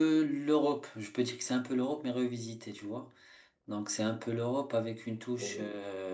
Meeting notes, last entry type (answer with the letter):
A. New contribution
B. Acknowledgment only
B